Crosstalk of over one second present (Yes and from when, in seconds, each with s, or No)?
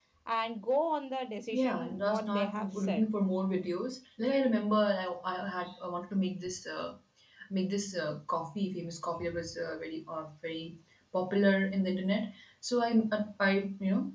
Yes, from 1.5 s